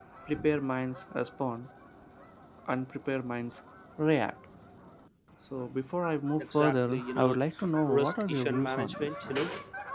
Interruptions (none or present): present